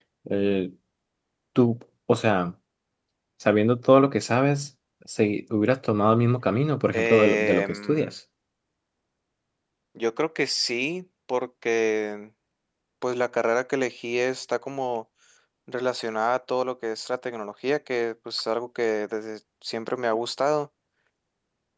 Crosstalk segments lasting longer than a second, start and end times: 6.9-8.1

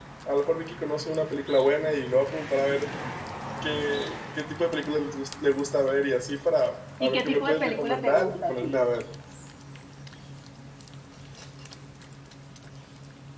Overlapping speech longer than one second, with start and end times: 7.0-8.8

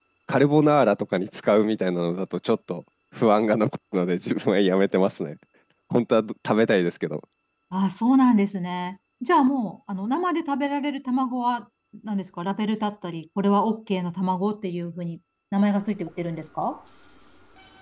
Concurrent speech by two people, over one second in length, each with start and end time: none

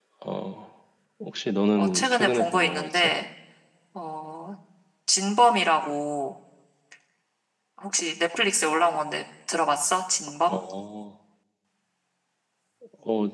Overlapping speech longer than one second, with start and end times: 1.8-3.1

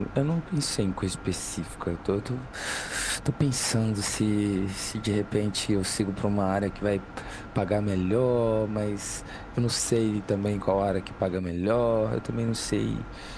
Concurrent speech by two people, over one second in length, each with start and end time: none

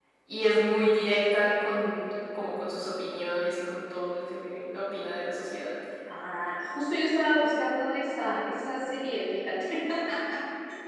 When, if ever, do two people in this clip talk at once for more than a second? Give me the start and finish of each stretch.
none

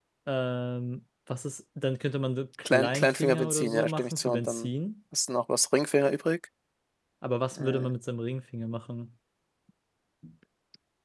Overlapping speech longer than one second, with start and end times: 2.6-4.7

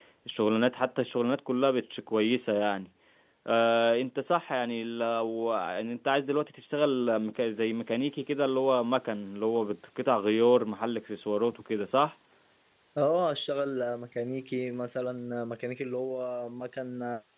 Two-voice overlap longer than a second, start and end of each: none

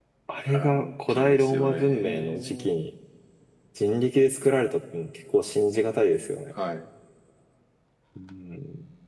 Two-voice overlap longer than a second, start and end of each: 0.5-2.7

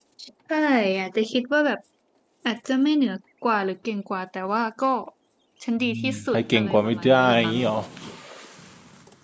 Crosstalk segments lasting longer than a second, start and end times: 5.9-7.6

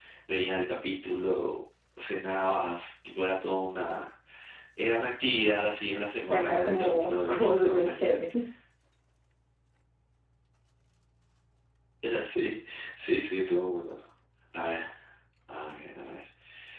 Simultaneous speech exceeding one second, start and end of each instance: 6.2-8.1

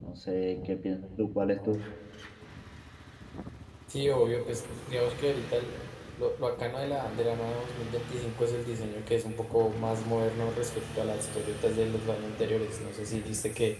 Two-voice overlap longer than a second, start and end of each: none

